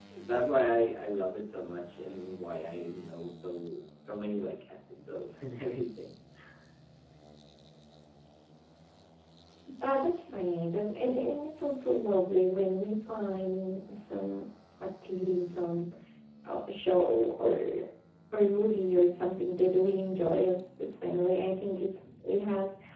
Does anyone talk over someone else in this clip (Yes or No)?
No